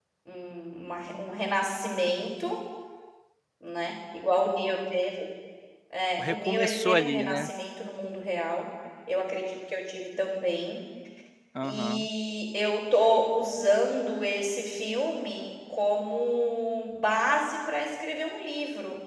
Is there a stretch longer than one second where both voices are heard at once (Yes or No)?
Yes